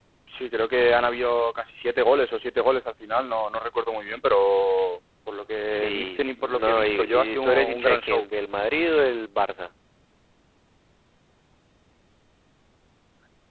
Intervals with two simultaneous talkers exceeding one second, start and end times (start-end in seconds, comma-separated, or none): 5.9-8.2